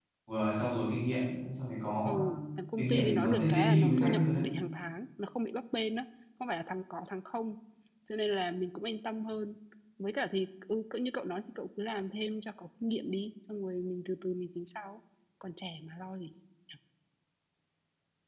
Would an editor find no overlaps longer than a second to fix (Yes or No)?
No